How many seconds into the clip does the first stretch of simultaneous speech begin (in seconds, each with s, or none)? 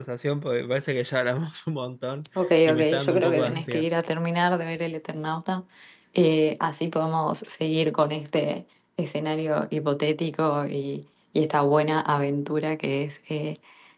2.4 s